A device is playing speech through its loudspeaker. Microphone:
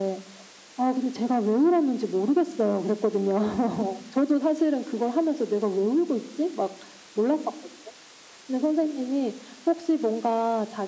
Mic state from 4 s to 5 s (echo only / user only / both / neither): echo only